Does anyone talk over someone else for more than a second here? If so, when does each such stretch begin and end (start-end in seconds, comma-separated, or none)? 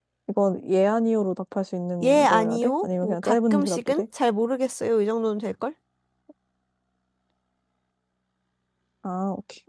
2.0-4.0